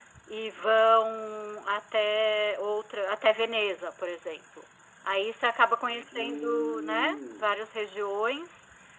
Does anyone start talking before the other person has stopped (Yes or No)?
Yes